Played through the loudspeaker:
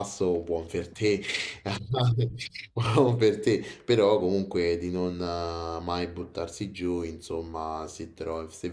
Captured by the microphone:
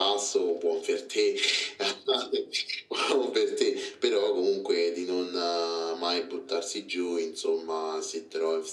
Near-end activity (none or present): none